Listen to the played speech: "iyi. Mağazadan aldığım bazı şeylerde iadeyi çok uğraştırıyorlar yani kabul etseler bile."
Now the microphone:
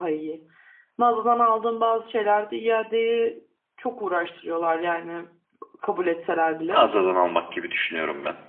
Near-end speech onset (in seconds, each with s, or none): 6.7 s